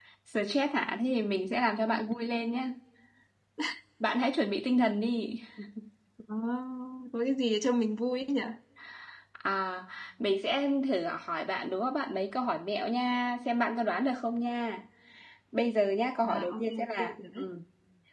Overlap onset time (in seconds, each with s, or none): 16.2 s